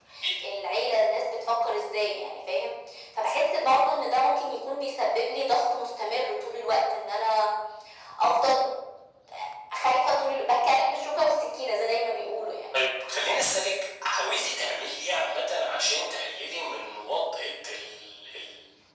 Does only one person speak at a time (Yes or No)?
Yes